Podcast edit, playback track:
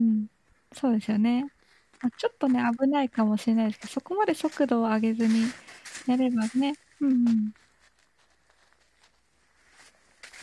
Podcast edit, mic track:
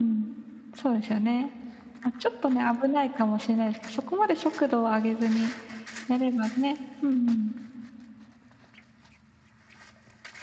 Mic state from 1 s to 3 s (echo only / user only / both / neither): echo only